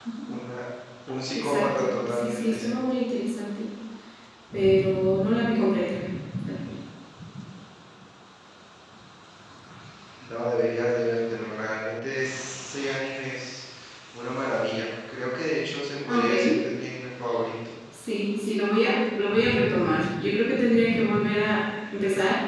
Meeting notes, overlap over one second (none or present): present